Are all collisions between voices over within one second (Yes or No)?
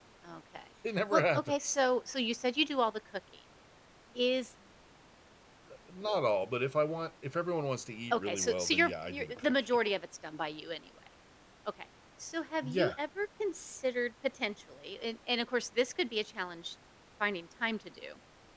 No